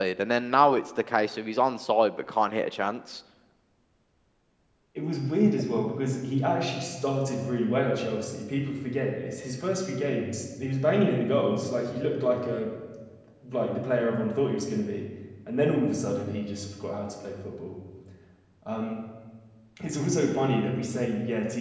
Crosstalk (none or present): none